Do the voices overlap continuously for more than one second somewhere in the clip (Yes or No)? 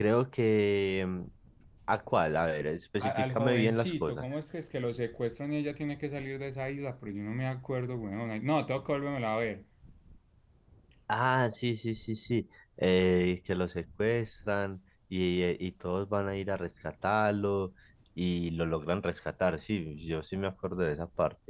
Yes